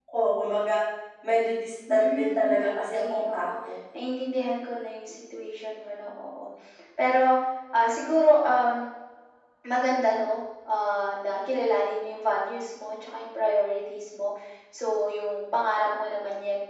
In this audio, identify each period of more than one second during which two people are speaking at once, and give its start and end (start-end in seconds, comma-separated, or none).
1.9-3.5